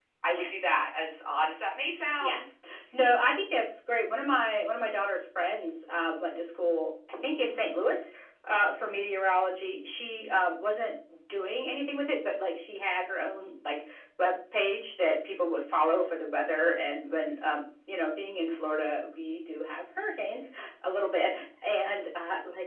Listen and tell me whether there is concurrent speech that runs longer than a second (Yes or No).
No